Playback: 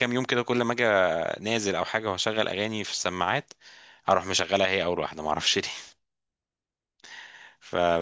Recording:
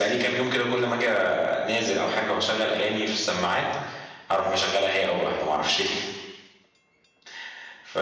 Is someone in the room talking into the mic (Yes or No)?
No